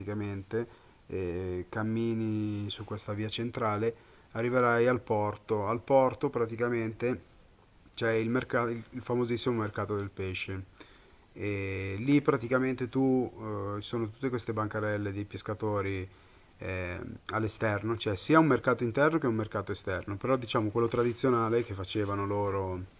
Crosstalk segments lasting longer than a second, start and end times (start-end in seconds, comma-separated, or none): none